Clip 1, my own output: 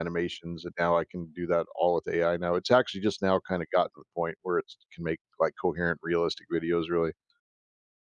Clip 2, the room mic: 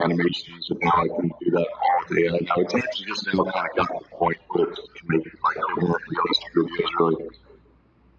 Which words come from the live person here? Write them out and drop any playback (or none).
none